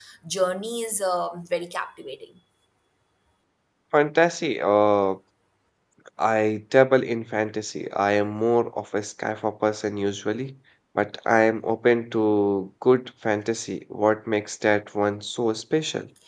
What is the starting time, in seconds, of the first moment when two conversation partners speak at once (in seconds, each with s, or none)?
none